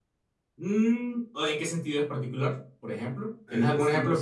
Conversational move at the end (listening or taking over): taking over